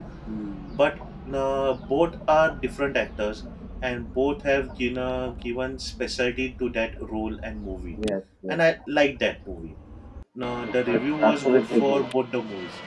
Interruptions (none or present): present